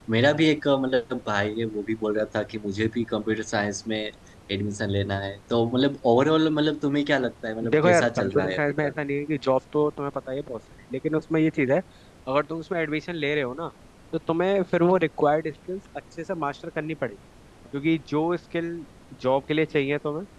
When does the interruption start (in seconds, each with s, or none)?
7.6 s